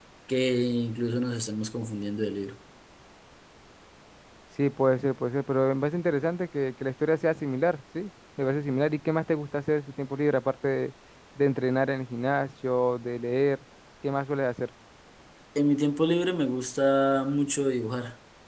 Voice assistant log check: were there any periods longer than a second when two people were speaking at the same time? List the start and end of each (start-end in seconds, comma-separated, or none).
none